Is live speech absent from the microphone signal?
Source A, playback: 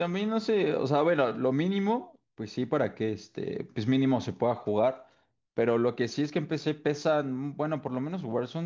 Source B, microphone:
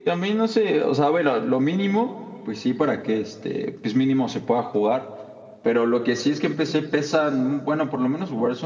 Yes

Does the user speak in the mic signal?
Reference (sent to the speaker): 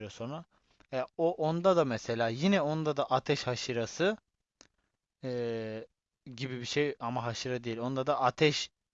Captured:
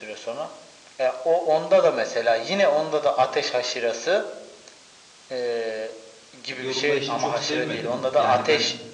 Yes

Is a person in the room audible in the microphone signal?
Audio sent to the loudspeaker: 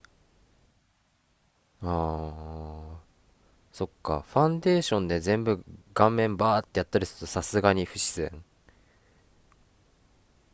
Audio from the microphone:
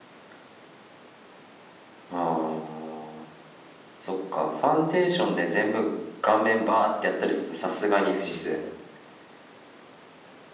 Yes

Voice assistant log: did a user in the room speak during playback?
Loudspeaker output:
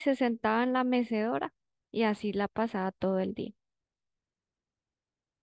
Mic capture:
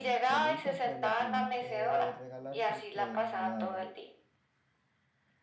Yes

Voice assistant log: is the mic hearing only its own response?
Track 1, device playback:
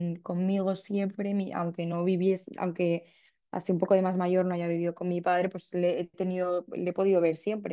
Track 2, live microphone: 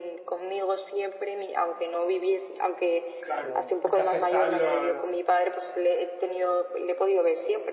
No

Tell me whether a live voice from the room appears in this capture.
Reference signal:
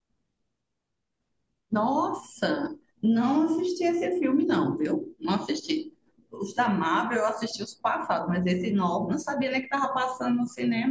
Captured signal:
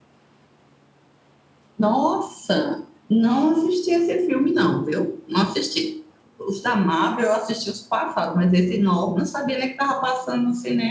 No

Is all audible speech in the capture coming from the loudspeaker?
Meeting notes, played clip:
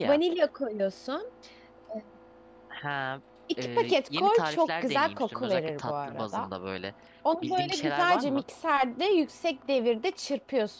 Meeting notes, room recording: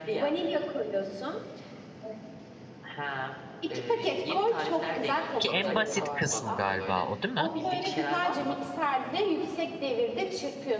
No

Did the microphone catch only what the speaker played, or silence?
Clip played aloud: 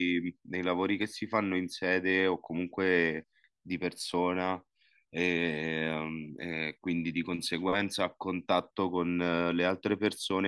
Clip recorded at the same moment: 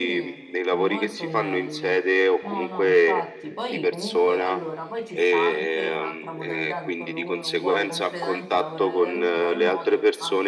No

